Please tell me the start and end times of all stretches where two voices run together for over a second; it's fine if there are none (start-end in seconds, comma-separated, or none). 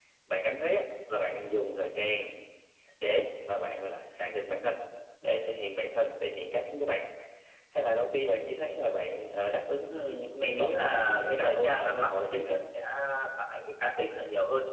9.9-12.6